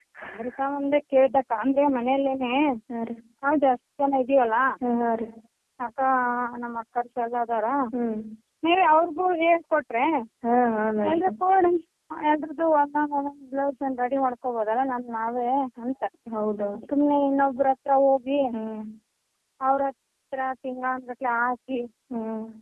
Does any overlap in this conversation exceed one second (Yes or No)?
No